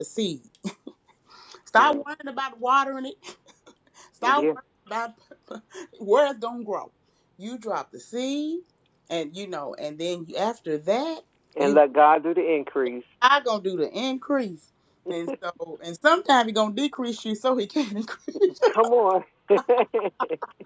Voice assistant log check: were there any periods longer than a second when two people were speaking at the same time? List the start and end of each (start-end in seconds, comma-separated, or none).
none